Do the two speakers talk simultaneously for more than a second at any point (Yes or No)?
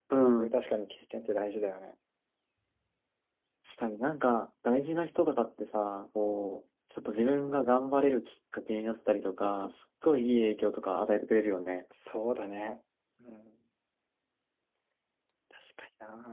No